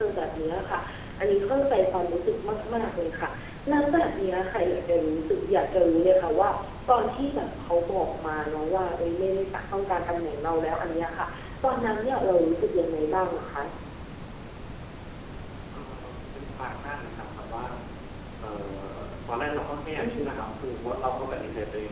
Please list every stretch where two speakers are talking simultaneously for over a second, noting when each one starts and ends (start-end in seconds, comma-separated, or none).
none